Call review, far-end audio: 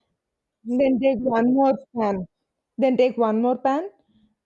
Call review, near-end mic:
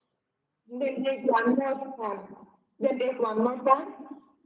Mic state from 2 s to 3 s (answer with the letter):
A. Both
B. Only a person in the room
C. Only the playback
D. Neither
C